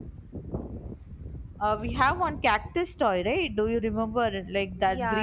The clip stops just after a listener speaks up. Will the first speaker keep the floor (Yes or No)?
No